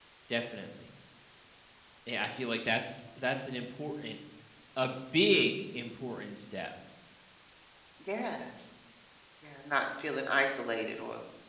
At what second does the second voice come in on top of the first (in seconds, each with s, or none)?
none